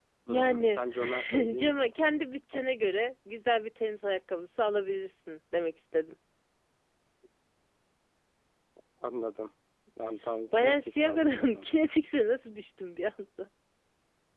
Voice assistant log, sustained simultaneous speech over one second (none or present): present